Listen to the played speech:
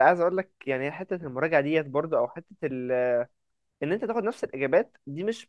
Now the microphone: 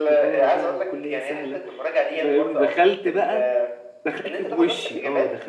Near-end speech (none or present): present